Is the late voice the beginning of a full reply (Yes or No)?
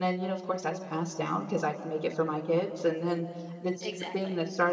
No